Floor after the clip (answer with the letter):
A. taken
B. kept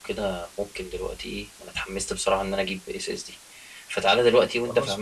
B